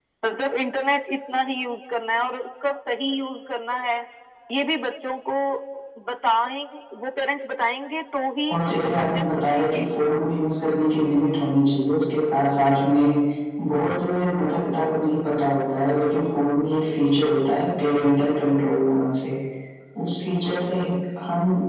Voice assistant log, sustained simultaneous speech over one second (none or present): present